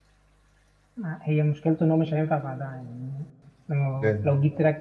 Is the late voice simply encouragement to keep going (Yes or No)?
Yes